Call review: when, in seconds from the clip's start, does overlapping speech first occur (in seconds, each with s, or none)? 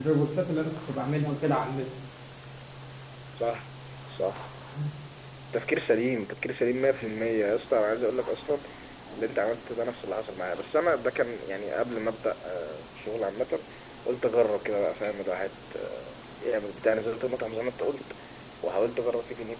none